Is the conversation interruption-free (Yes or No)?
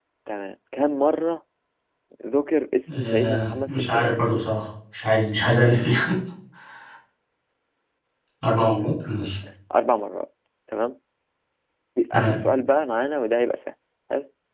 No